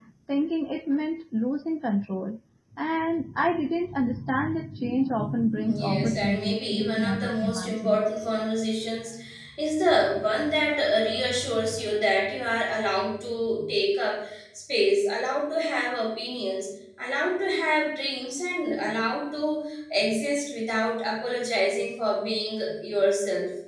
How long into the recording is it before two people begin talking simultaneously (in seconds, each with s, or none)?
5.7 s